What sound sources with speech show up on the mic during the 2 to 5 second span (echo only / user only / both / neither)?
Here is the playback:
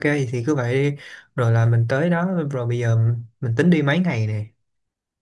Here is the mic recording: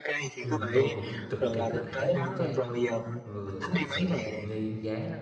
both